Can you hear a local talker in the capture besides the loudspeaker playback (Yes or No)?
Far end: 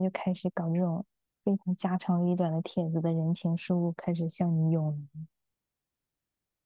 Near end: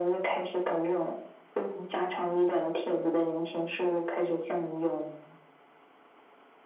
No